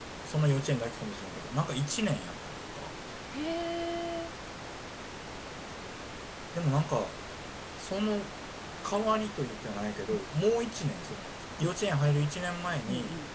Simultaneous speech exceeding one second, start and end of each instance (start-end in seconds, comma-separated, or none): none